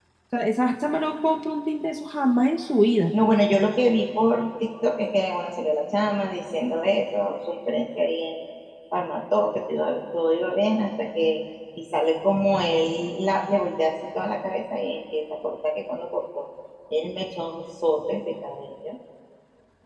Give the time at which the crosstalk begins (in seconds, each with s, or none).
none